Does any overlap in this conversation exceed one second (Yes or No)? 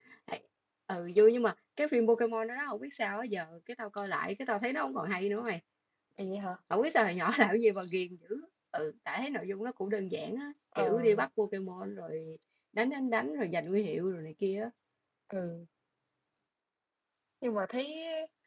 No